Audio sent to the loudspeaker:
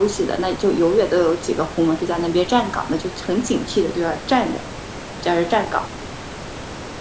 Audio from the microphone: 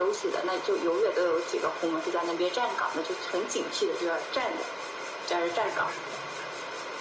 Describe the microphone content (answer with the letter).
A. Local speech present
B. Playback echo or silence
A